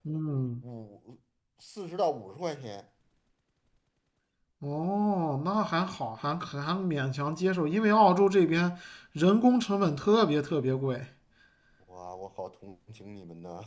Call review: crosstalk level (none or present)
none